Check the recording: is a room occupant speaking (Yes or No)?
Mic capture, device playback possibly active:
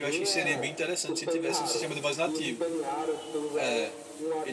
Yes